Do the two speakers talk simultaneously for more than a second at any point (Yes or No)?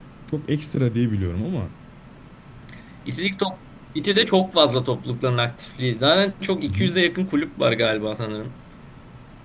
No